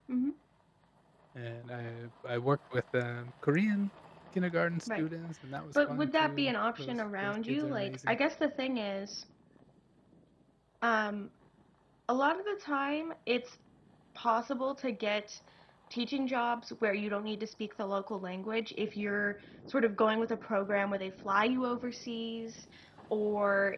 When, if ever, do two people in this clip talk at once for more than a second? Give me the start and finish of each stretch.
5.8-8.2

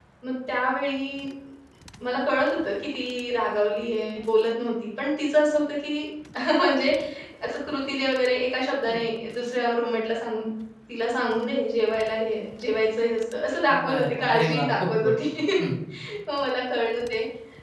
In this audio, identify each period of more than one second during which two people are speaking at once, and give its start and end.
13.9-15.1

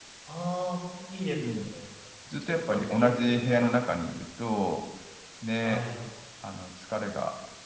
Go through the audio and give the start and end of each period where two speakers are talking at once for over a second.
2.4-3.7

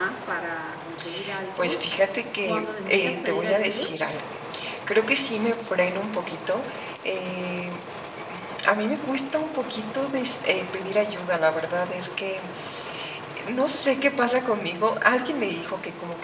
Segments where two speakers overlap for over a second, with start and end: 2.4-3.8

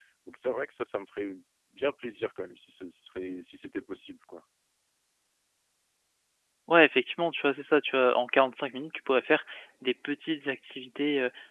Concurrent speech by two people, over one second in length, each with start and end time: none

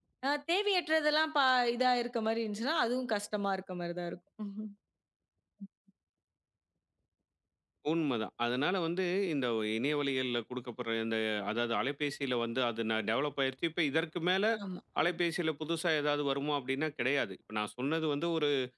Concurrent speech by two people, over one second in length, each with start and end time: none

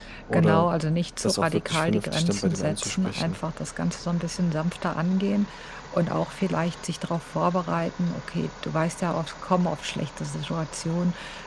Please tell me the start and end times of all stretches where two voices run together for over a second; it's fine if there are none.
1.2-3.4

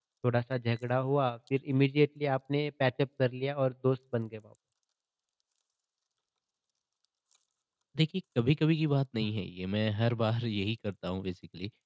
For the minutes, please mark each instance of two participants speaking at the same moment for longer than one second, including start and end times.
none

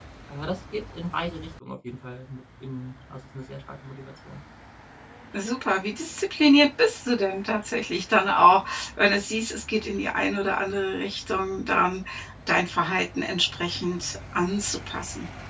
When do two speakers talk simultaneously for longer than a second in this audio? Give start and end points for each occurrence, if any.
none

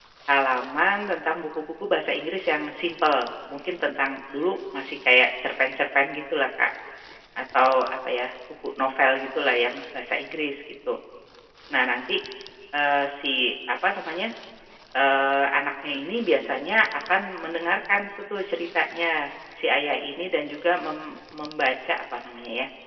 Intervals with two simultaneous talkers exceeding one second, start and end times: none

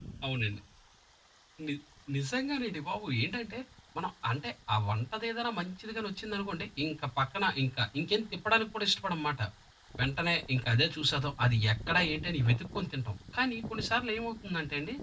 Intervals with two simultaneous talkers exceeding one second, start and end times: none

